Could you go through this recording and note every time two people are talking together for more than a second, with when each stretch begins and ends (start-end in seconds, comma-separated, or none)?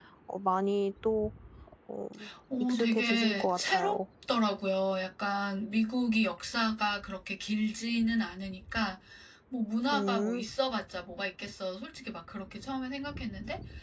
2.6-4.0